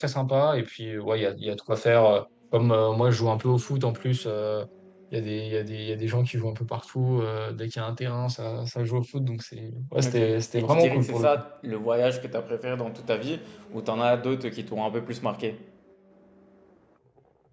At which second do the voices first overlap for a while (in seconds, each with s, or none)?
10.0 s